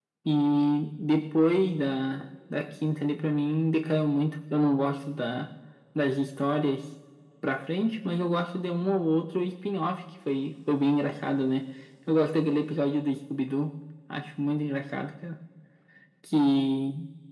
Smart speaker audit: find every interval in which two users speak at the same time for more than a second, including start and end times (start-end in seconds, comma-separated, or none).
none